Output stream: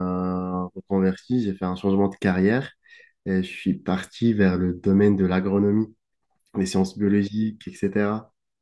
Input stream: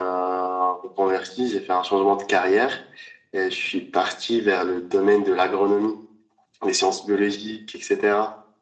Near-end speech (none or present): none